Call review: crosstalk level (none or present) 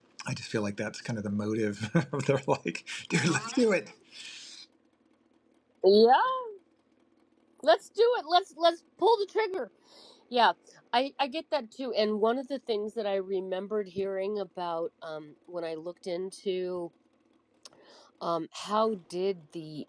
none